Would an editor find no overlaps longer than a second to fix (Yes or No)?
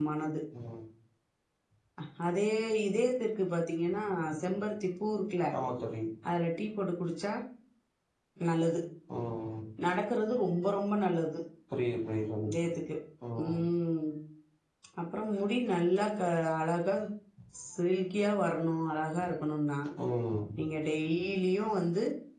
Yes